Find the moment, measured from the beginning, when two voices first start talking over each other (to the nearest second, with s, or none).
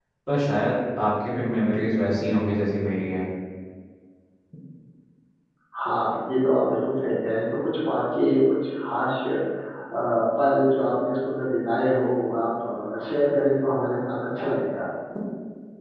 none